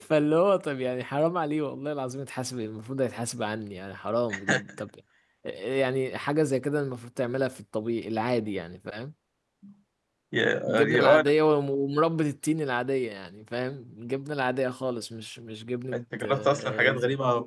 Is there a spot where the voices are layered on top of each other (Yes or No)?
Yes